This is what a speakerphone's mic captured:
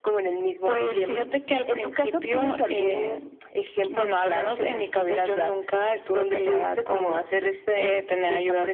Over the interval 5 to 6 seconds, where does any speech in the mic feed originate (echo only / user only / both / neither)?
echo only